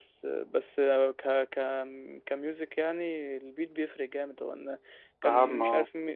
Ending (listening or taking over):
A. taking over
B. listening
B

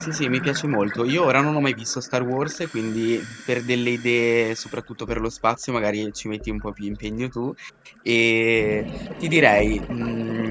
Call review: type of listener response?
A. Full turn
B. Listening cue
B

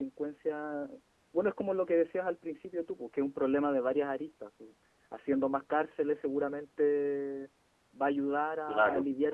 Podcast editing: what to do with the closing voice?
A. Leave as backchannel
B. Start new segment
A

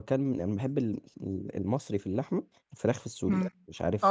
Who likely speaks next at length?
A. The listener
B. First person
A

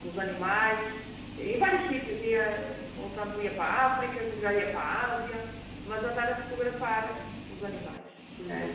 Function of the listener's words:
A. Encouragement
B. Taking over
A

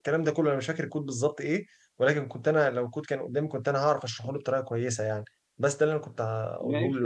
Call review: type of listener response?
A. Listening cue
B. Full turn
B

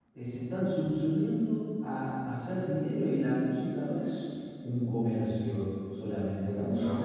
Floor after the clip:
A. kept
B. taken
A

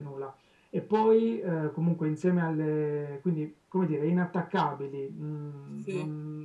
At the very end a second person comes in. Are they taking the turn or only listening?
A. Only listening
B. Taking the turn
A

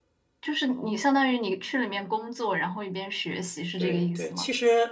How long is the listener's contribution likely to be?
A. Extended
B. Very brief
A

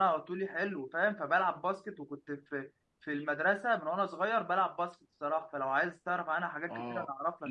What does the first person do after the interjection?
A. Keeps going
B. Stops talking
B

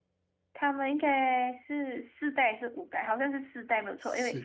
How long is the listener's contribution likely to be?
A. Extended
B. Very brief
B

